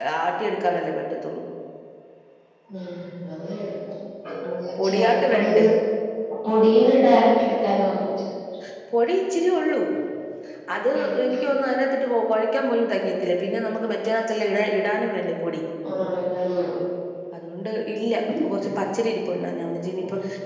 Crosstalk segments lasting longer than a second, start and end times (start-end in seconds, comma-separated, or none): 4.5-5.7